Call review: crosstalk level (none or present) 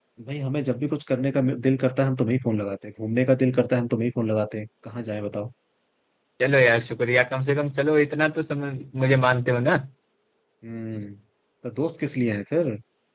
none